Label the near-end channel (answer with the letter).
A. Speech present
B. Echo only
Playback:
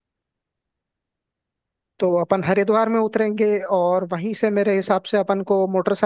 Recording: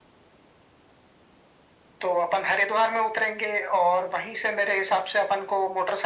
B